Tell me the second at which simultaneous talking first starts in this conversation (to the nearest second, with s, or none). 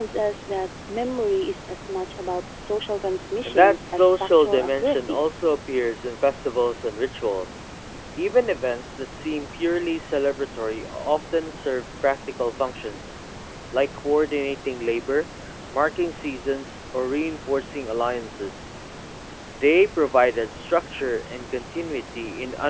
3 s